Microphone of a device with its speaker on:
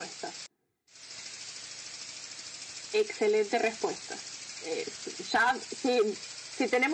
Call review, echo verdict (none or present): present